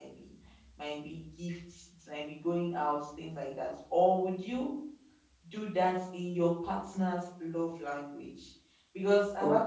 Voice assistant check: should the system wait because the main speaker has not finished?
Yes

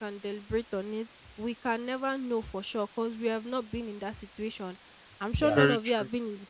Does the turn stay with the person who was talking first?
Yes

